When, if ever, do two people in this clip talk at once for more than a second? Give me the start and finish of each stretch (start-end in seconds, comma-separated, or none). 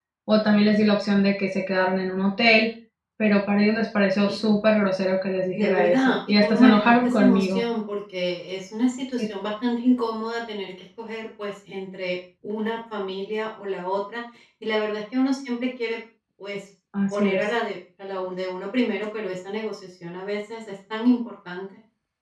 5.5-7.6